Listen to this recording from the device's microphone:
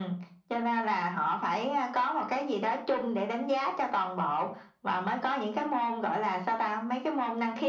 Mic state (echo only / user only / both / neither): echo only